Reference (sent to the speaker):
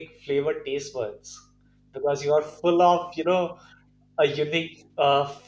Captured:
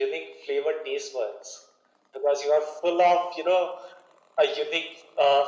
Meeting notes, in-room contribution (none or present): none